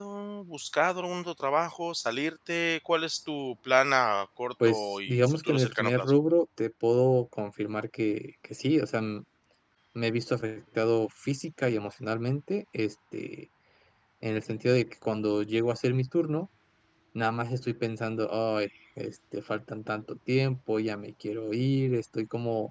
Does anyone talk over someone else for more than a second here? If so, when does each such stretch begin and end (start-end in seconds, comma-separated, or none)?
4.6-6.1